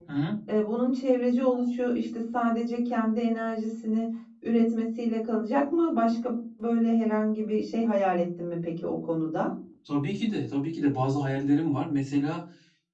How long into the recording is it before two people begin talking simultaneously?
none

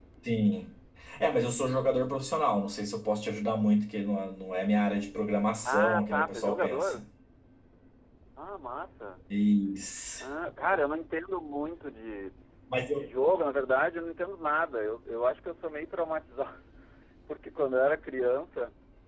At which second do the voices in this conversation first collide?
5.7 s

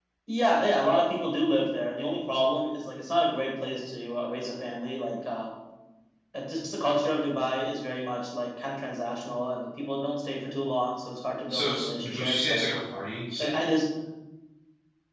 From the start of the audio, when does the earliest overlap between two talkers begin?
11.5 s

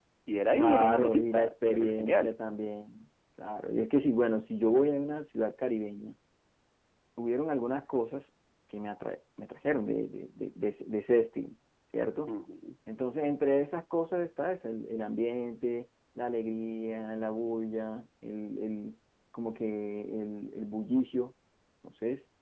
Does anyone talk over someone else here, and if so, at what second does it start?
0.5 s

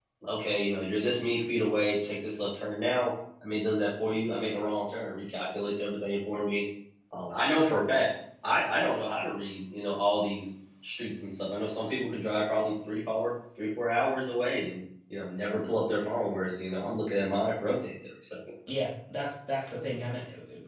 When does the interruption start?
none

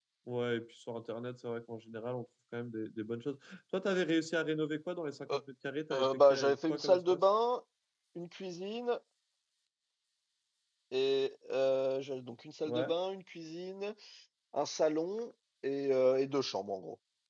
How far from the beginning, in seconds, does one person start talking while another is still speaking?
5.9 s

